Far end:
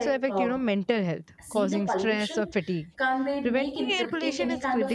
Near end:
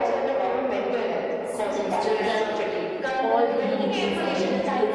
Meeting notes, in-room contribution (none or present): present